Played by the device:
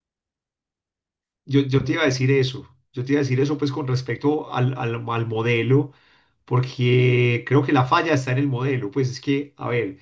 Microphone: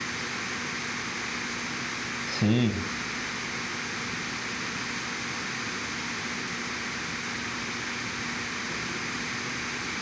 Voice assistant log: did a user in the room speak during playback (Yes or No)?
Yes